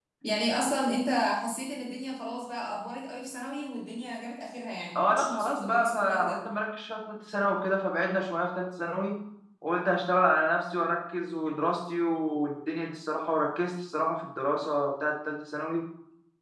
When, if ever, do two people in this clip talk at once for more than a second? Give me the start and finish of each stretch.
5.0-6.4

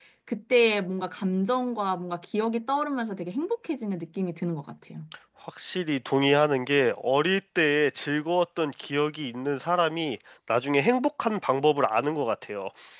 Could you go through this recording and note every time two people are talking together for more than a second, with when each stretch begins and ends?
none

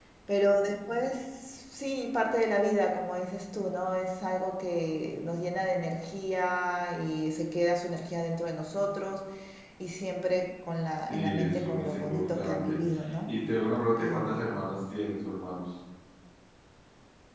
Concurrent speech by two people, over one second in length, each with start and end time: 11.1-12.8

